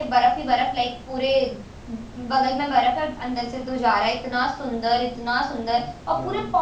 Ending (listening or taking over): listening